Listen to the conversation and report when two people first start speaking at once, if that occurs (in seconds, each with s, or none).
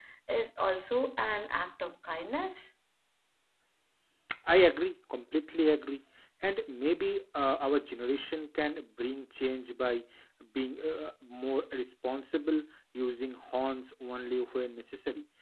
none